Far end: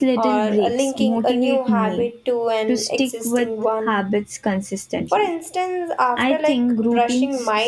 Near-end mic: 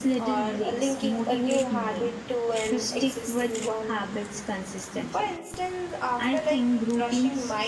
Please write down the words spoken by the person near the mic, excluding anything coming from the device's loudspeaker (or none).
none